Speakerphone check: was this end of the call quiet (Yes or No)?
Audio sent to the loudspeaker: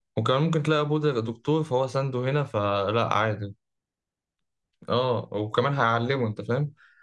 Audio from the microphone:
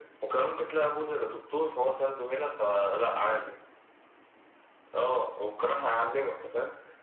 Yes